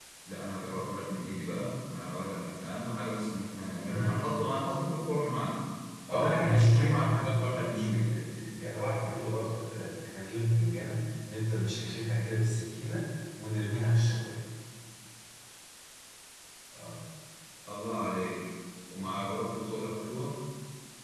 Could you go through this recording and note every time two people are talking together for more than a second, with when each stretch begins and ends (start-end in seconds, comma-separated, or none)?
6.1-8.0